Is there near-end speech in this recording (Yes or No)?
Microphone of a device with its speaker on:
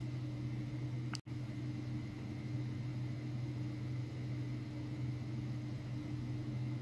No